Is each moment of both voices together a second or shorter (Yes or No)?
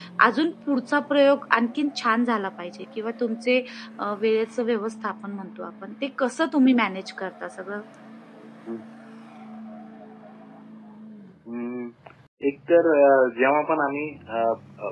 Yes